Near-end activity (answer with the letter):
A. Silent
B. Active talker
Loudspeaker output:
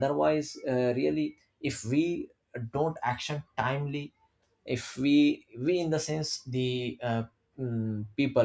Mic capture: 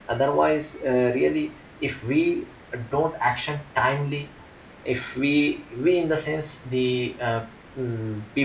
A